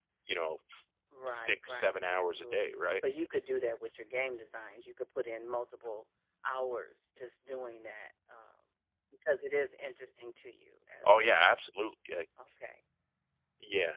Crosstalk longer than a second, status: present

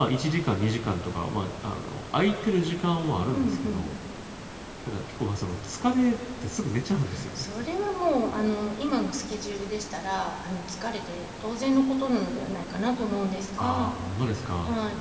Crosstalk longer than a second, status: none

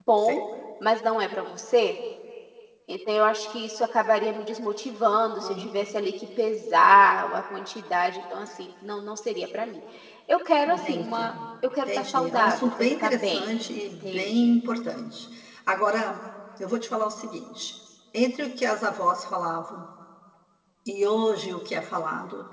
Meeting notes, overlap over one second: present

